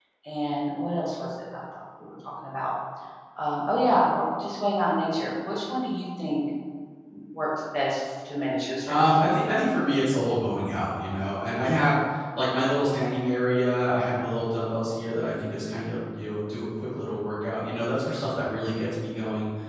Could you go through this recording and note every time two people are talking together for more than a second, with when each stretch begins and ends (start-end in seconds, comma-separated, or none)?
none